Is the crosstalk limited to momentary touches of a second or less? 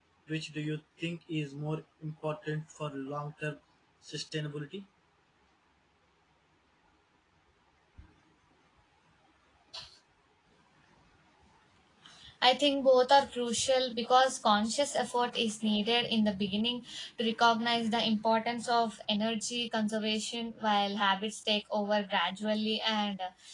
Yes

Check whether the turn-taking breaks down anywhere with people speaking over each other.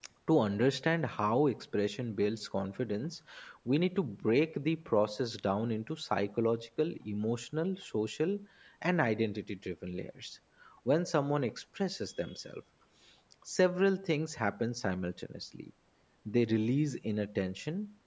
No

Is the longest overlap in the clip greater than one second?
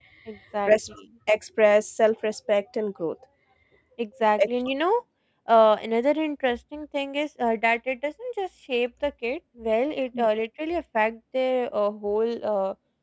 No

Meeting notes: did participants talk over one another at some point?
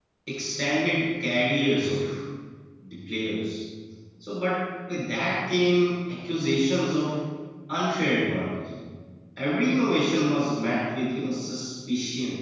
No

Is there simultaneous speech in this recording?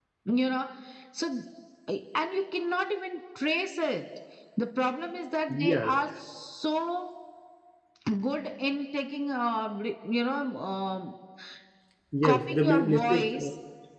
Yes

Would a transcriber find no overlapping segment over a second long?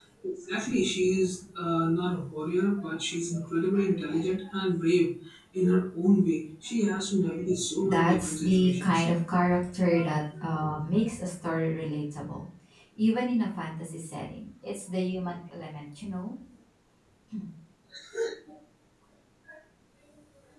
No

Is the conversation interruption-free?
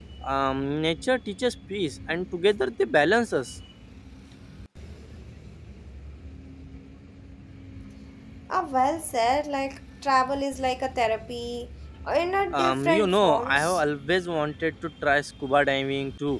No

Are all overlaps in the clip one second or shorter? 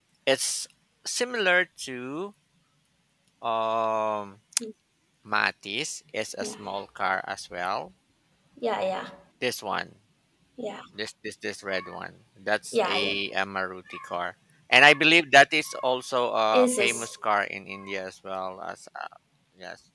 Yes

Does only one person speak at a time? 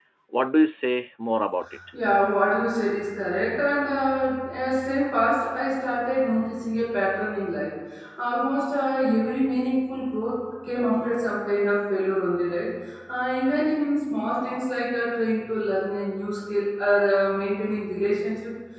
Yes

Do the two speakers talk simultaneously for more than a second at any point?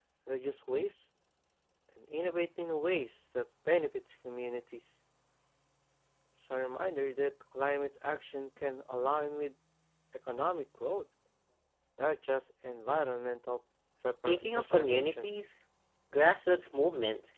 Yes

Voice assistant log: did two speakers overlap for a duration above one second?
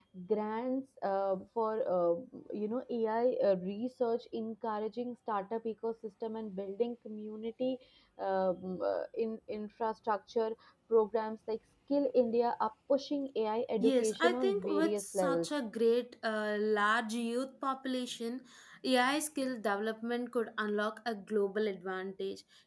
Yes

